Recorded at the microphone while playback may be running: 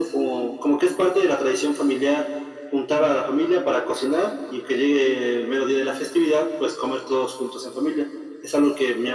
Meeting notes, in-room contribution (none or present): none